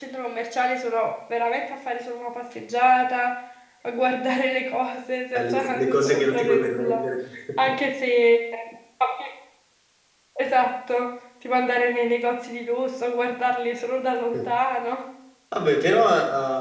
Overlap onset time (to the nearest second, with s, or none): 5 s